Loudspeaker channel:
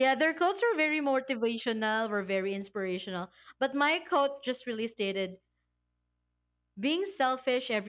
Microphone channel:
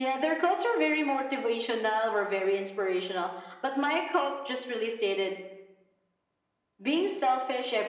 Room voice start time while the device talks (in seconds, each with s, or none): none